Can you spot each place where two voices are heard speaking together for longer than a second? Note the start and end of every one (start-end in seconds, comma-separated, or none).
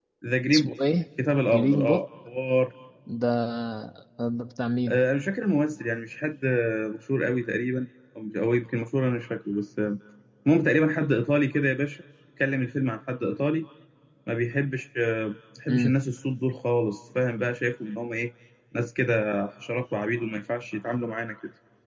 none